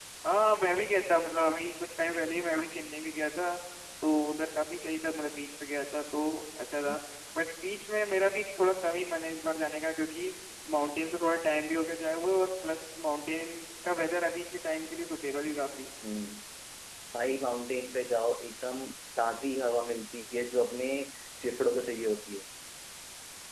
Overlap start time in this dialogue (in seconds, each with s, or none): none